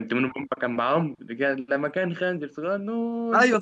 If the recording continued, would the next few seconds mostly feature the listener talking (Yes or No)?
Yes